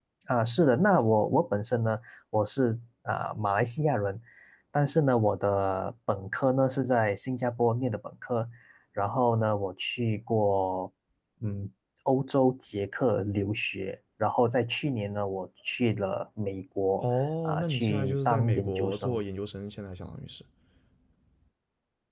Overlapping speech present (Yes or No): Yes